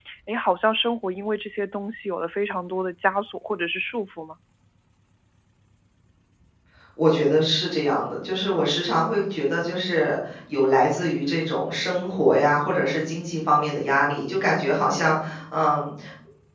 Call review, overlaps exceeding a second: none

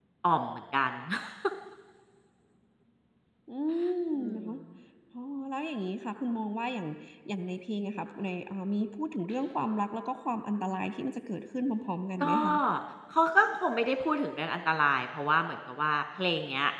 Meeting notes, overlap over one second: none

